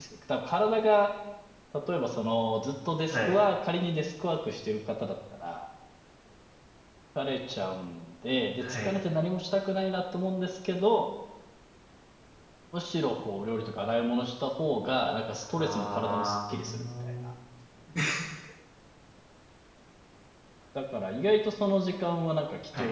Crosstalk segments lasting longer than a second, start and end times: 15.6-17.3

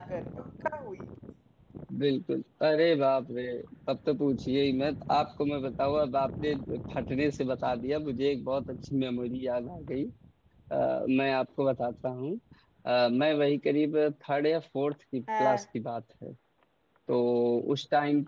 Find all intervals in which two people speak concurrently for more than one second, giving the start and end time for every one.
none

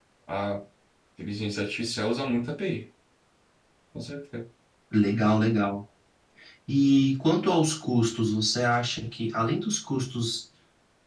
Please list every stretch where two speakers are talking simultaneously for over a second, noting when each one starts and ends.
none

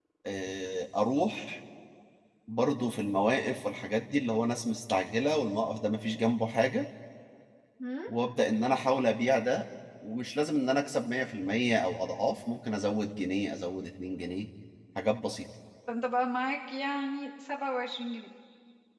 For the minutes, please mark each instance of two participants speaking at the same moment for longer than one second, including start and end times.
none

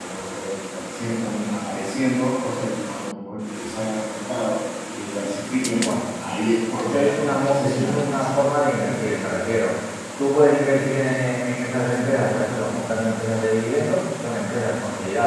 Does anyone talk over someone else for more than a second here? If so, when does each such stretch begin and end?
6.8-8.3

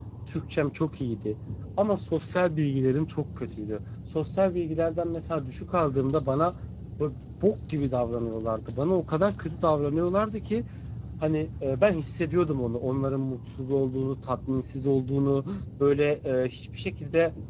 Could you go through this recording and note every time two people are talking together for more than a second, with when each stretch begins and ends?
none

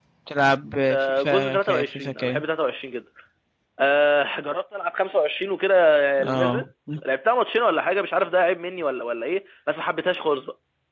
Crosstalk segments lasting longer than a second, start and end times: 0.9-2.4

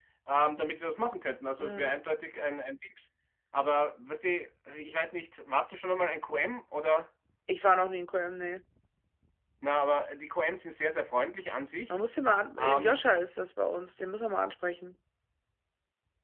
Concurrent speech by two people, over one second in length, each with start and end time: none

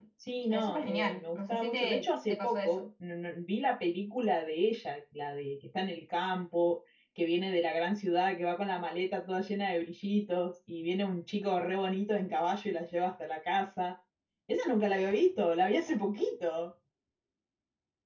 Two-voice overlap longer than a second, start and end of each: 0.5-2.9

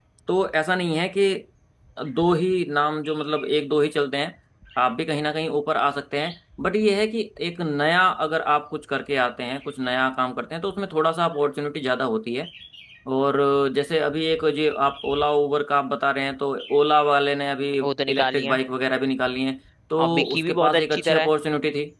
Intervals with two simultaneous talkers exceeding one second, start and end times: 20.0-21.3

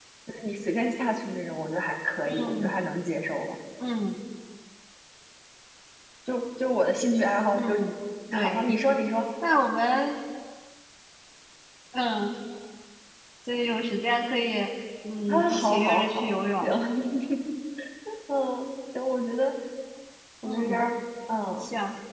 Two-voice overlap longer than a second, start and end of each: 15.3-16.7

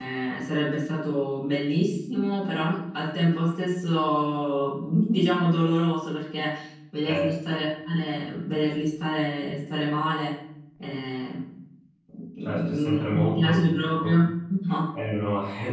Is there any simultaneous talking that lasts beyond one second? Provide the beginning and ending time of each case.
12.4-14.2

